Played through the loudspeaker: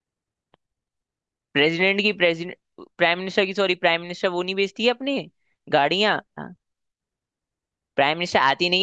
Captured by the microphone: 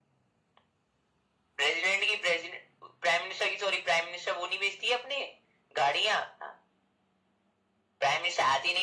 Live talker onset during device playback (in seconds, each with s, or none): none